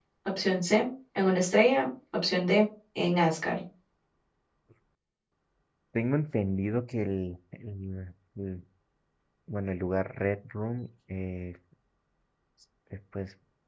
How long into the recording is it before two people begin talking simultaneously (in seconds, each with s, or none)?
none